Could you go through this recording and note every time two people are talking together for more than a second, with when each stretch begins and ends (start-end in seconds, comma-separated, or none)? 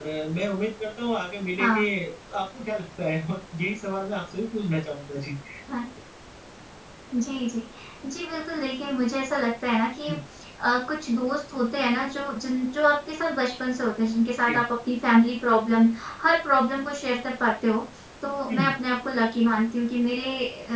none